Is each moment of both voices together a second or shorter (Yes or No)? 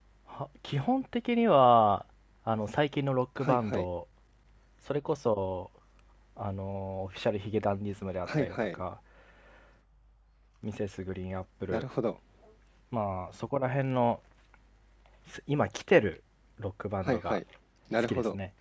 Yes